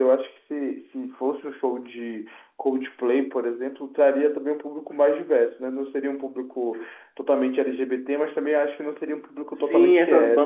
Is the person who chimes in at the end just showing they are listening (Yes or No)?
No